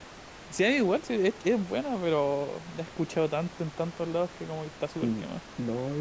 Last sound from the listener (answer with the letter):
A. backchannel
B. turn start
B